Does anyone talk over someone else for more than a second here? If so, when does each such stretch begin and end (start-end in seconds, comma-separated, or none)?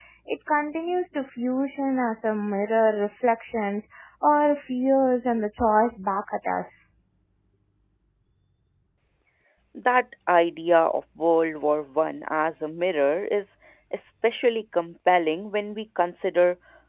none